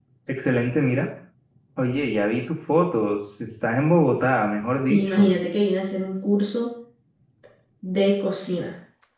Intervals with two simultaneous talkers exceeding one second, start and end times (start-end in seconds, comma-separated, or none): none